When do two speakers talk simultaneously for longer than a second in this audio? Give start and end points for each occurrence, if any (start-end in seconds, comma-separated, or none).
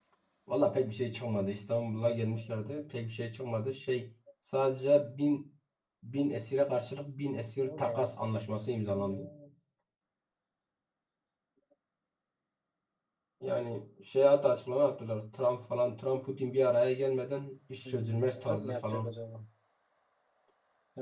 17.8-19.2